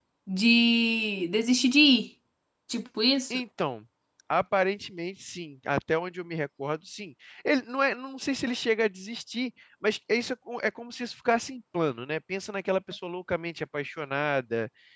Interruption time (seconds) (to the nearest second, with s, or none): none